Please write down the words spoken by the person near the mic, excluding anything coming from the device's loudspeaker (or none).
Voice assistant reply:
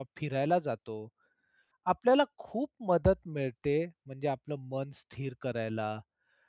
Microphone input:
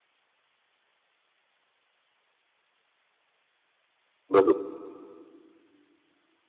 बरोबर.